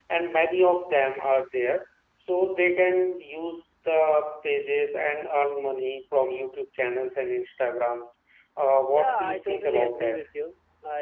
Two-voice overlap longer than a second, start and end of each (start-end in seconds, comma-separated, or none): 8.9-10.2